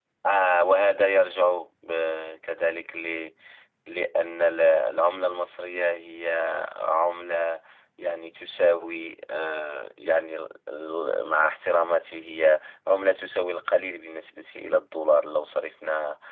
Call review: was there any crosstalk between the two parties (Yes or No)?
No